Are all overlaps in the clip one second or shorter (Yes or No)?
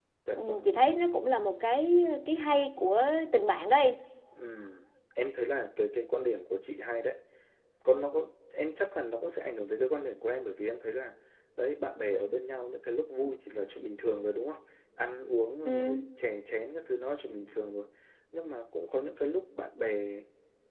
Yes